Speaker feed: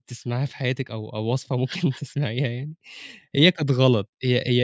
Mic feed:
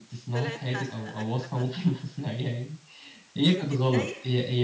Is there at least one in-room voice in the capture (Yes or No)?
Yes